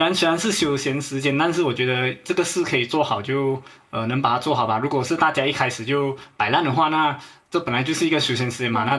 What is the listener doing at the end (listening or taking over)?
listening